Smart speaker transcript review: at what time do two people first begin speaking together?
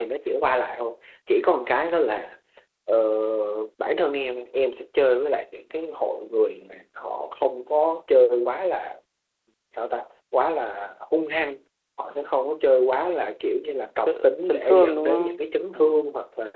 14.1 s

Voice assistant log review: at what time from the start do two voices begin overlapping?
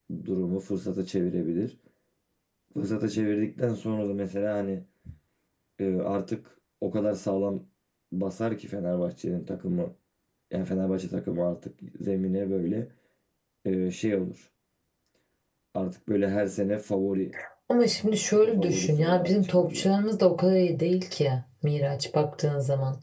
18.3 s

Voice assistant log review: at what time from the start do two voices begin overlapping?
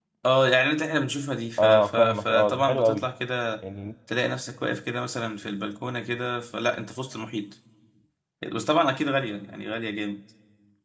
1.6 s

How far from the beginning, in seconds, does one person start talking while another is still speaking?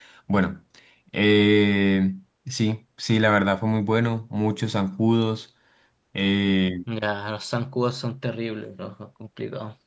none

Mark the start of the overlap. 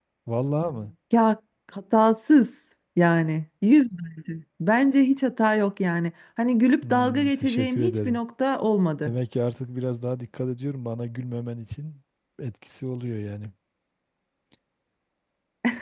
6.8 s

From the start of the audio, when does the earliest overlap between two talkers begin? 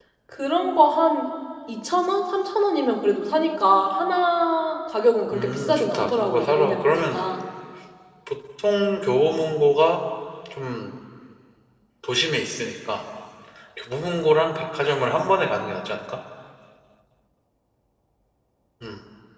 5.3 s

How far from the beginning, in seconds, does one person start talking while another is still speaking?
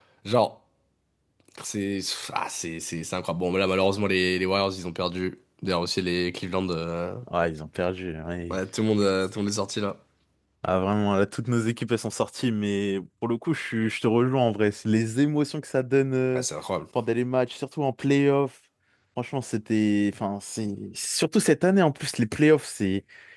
none

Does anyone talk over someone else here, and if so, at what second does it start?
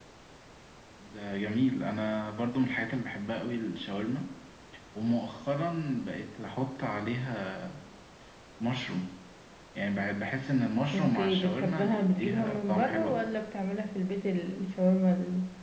10.9 s

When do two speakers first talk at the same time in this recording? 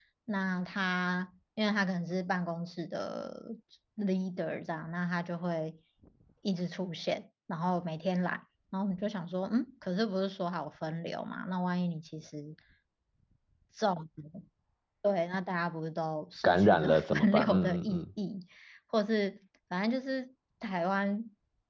16.4 s

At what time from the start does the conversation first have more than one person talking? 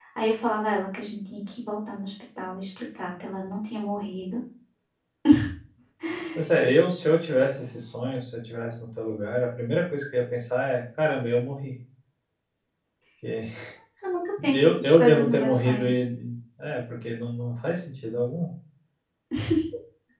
14.5 s

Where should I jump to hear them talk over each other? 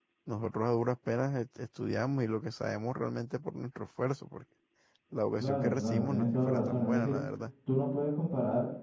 5.4 s

